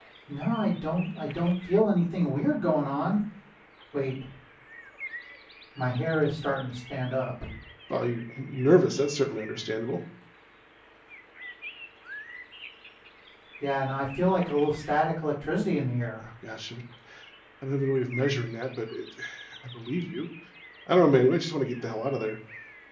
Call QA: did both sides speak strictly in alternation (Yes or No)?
Yes